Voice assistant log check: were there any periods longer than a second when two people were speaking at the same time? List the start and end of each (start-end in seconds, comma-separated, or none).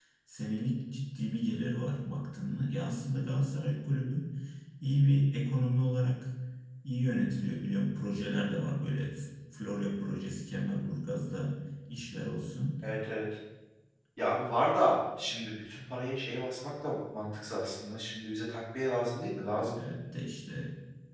none